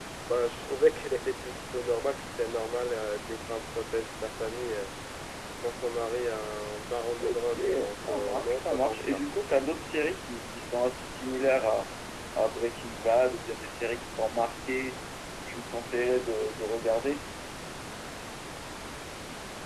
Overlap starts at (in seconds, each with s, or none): 7.2 s